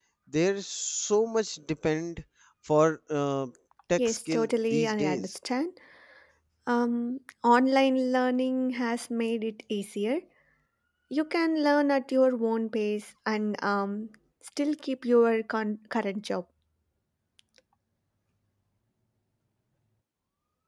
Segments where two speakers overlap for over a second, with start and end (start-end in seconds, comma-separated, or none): 4.0-5.4